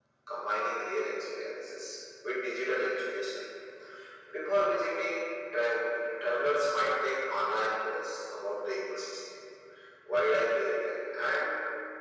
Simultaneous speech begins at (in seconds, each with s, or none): none